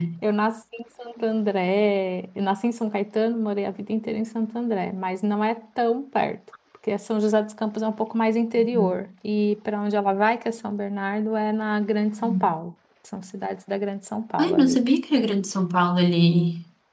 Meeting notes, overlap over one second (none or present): none